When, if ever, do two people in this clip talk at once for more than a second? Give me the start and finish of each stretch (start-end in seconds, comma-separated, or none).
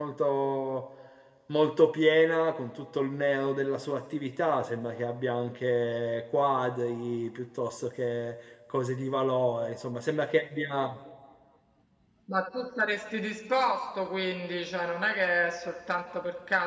none